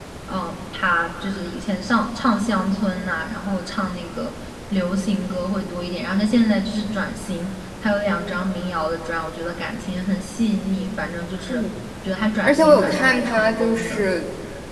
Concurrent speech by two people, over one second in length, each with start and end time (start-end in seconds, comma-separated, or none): 12.4-14.1